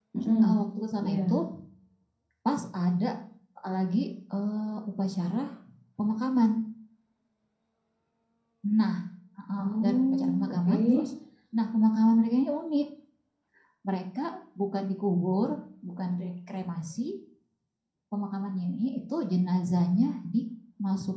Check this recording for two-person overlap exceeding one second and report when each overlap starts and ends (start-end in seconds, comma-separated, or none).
9.6-10.8